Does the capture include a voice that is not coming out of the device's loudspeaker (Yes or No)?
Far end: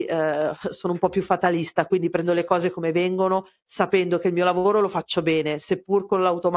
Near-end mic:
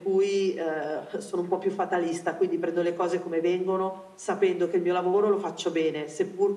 No